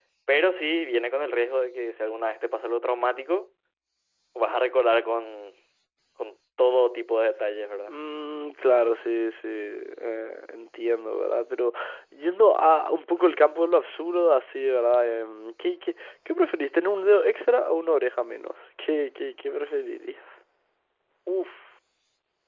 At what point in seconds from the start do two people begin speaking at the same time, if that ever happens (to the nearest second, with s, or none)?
none